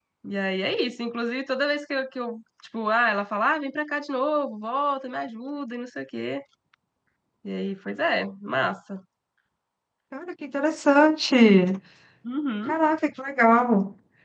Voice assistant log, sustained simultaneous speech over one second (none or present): none